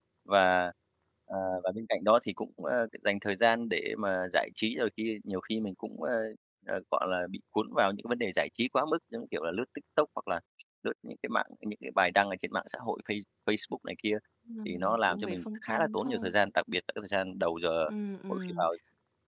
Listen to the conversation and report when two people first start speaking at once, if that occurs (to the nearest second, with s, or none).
15 s